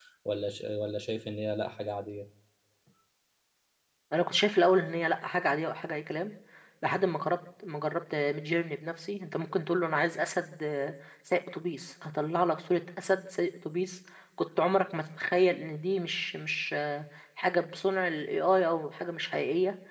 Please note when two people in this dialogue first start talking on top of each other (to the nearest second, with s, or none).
none